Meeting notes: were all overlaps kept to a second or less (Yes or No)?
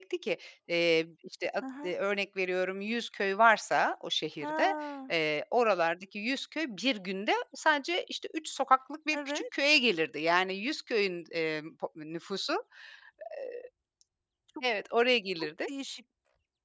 Yes